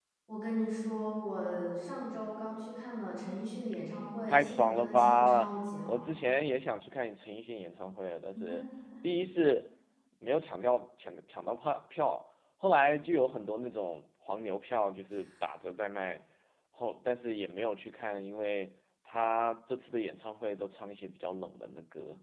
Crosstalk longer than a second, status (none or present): present